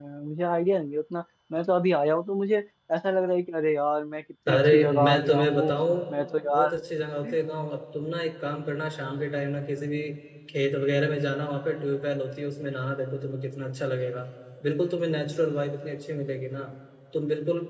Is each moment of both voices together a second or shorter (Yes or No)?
No